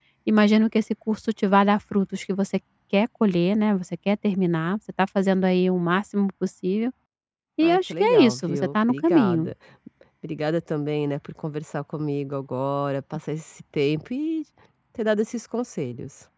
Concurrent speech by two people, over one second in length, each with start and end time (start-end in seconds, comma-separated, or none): 7.6-9.5